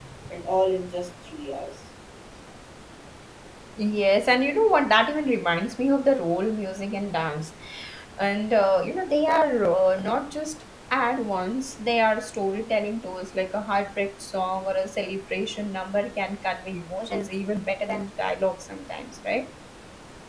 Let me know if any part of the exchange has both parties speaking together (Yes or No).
No